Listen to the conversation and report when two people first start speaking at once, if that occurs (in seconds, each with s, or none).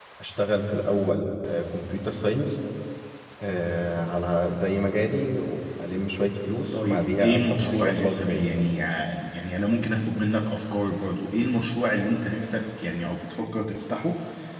6.7 s